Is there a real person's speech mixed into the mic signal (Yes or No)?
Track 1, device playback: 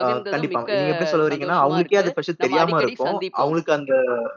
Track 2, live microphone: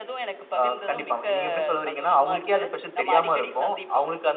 No